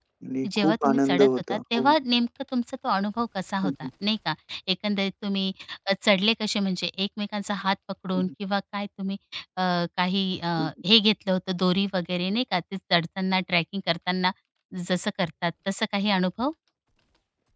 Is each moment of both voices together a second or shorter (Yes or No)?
No